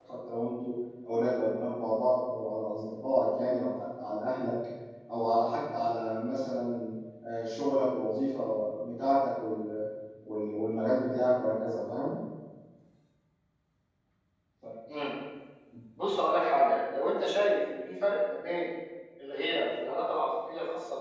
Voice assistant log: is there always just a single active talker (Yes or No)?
Yes